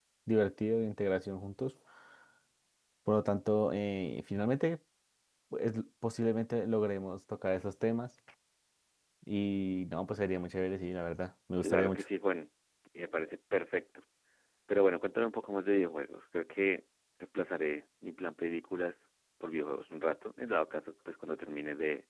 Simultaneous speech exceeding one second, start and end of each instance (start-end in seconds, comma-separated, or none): none